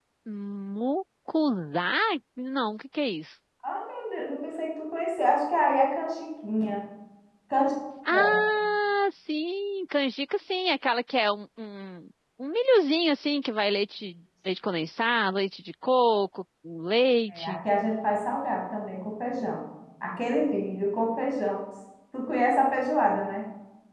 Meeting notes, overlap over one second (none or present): none